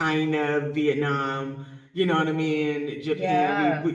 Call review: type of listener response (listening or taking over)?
listening